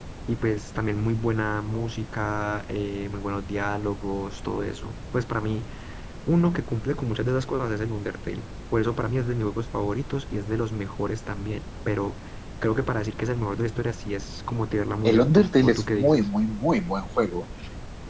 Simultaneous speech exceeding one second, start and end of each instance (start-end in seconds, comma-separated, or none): 15.1-16.3